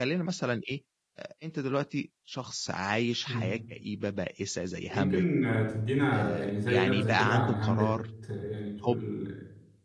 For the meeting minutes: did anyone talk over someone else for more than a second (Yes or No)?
Yes